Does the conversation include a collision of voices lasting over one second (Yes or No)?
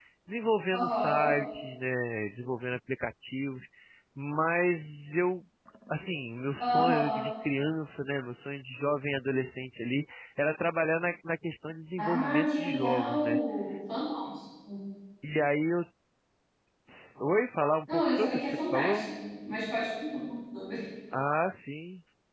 Yes